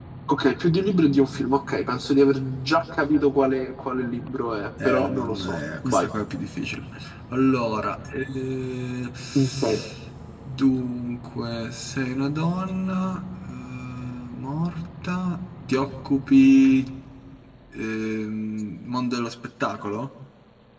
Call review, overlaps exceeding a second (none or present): present